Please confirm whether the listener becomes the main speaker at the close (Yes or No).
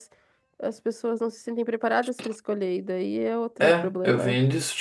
Yes